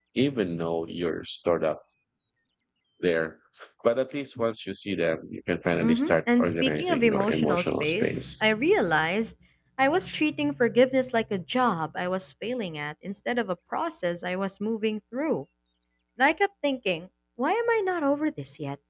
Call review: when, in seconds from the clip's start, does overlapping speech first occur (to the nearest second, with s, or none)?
6 s